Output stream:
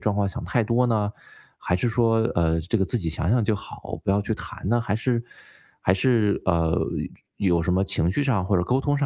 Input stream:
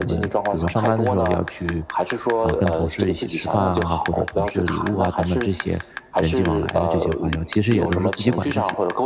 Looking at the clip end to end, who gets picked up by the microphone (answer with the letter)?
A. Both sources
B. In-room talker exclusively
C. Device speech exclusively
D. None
A